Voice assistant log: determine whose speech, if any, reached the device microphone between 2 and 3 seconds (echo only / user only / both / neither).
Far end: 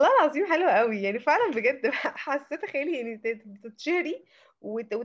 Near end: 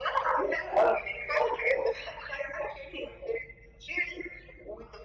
echo only